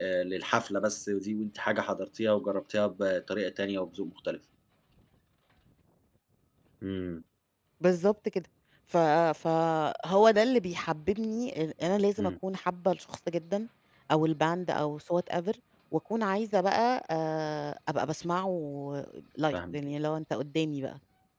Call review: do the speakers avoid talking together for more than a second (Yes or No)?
Yes